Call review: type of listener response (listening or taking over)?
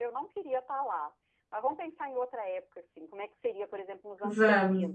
listening